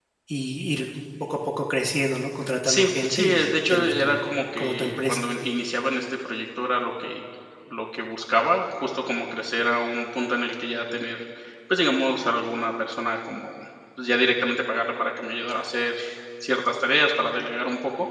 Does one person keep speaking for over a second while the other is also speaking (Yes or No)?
Yes